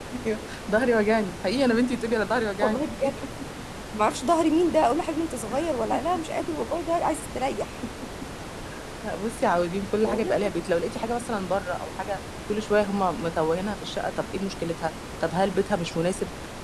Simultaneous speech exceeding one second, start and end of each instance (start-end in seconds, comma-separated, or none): none